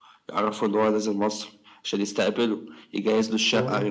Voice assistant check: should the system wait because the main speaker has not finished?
Yes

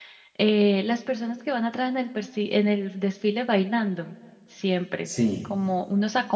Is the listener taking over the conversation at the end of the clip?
No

